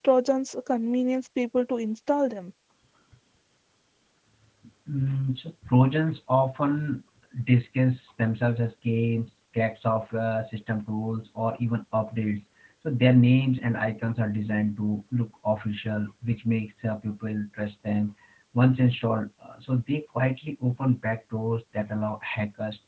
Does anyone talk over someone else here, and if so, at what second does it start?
none

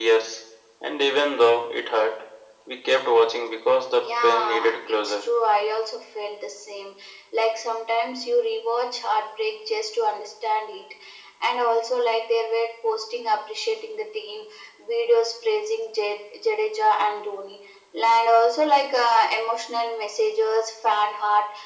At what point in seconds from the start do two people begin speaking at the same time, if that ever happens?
3.9 s

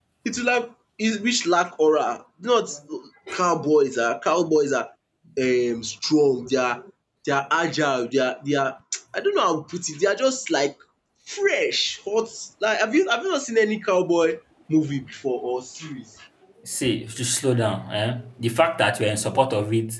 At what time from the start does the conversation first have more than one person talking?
none

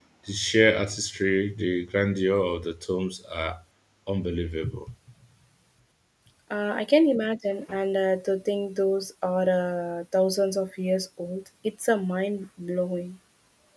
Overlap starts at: none

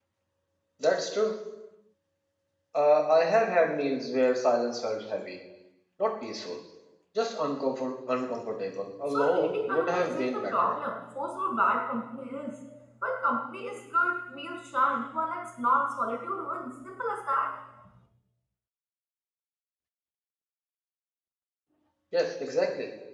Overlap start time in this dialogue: 9.1 s

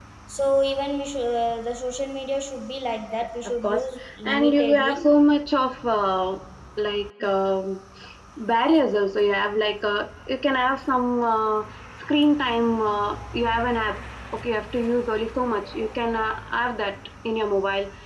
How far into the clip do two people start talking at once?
3.5 s

